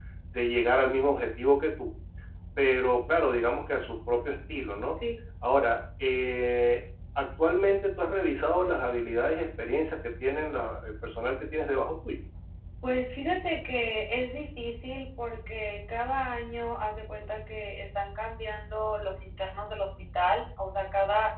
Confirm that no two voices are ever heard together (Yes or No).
Yes